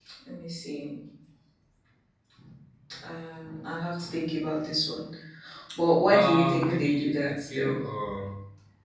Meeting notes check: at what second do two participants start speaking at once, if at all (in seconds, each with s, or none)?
6.1 s